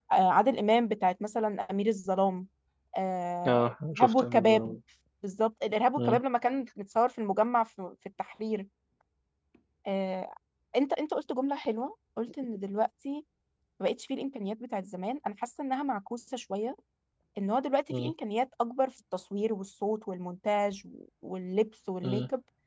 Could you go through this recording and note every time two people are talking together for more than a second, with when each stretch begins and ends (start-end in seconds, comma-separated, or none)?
3.5-4.8